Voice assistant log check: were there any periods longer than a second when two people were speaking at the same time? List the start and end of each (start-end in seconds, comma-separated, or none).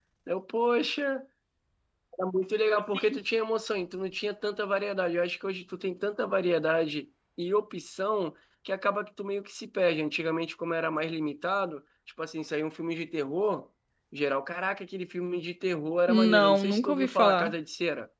16.1-17.5